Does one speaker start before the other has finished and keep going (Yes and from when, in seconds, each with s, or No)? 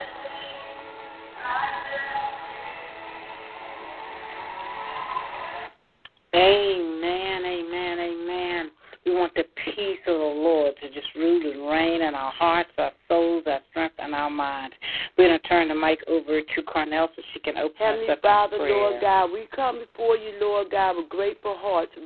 Yes, from 17.8 s